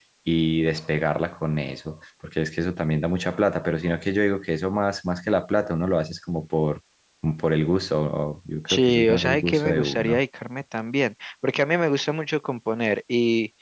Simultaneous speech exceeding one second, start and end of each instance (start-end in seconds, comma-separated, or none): 8.7-10.2